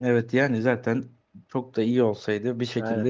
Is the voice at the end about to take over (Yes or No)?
No